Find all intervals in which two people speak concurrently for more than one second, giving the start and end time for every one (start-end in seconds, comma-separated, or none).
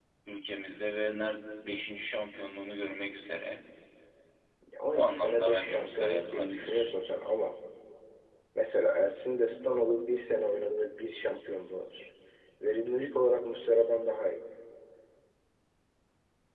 4.9-6.9